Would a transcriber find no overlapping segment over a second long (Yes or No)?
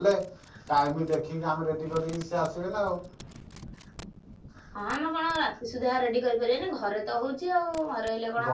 Yes